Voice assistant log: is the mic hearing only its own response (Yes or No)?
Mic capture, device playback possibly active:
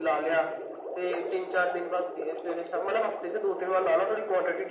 Yes